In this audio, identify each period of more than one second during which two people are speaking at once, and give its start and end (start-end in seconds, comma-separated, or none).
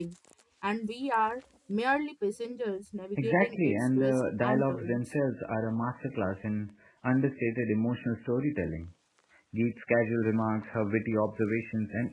3.2-5.0